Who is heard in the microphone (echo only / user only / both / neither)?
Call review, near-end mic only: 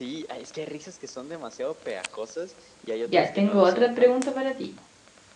both